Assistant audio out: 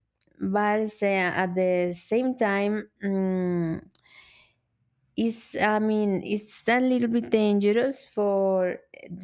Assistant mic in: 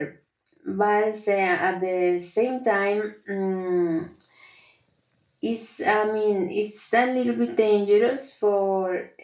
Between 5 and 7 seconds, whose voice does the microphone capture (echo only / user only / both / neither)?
echo only